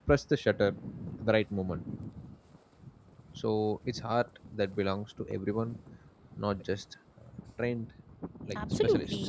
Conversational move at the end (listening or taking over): taking over